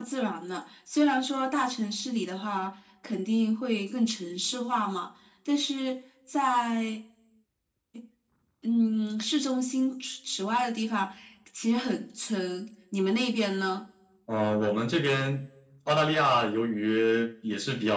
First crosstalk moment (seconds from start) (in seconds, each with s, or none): none